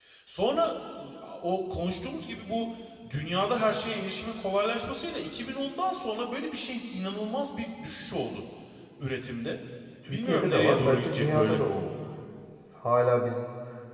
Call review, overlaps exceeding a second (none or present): present